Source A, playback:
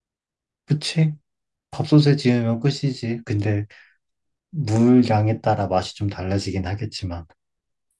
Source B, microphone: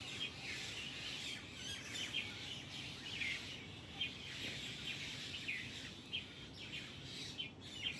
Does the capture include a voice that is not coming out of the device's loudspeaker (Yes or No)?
No